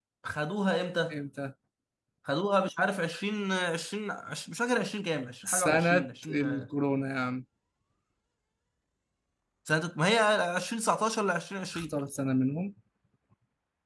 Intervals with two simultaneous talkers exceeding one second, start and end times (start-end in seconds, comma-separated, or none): 5.5-6.7